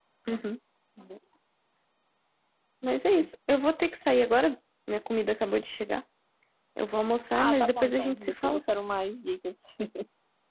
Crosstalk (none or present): present